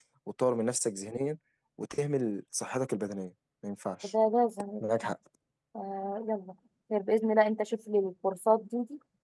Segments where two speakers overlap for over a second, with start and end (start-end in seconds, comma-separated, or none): none